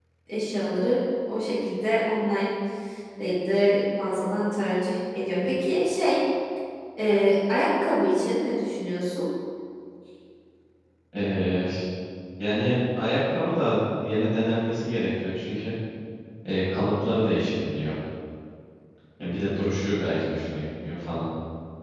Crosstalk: none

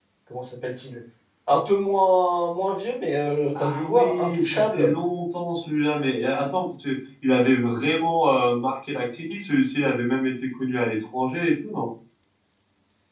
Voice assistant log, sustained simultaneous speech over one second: present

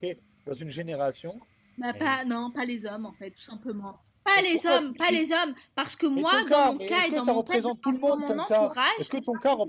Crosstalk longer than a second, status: present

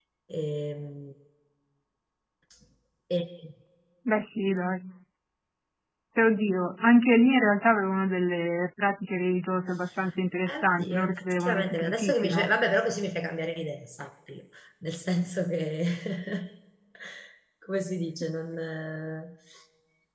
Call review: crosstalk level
present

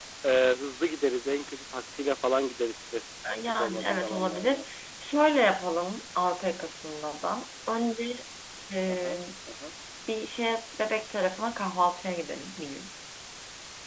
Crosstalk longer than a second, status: present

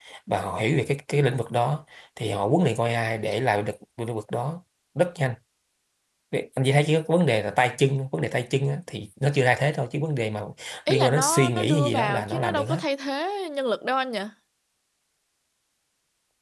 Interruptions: present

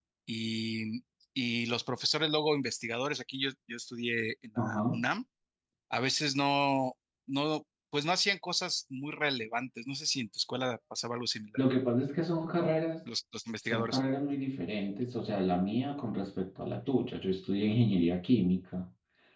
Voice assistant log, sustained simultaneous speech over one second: none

